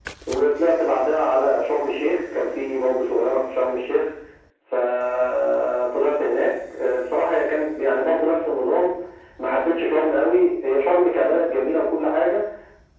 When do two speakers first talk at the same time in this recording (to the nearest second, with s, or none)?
none